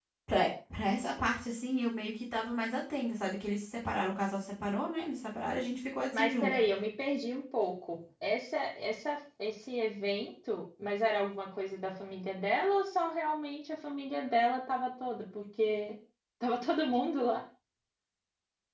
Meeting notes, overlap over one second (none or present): none